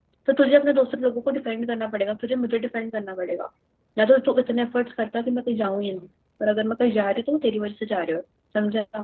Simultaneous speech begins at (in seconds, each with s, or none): none